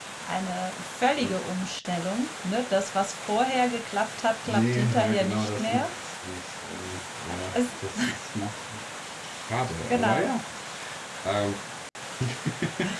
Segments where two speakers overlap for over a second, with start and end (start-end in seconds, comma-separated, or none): 4.4-5.9